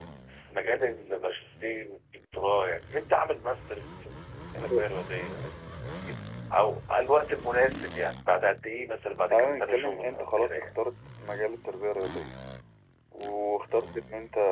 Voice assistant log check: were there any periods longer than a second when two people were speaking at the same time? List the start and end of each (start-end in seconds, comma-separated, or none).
9.3-10.6